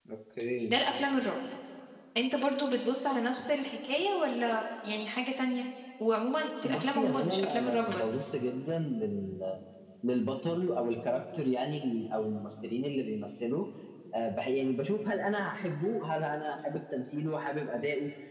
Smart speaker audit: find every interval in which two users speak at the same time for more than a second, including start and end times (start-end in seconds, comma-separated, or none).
6.7-8.1